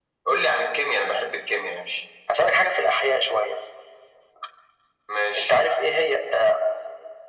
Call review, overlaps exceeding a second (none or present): none